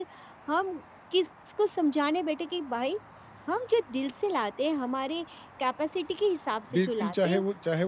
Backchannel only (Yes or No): No